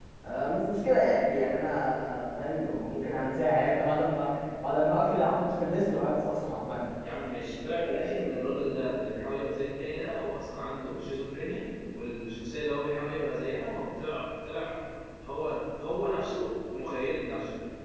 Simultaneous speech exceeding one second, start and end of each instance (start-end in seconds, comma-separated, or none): none